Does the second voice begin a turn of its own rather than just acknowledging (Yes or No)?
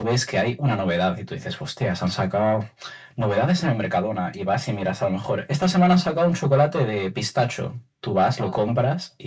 No